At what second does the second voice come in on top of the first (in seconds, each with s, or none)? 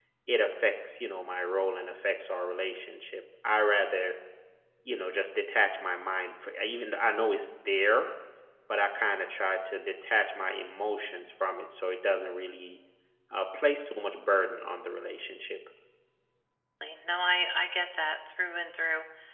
none